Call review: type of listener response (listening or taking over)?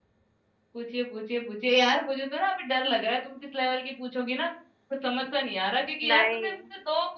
listening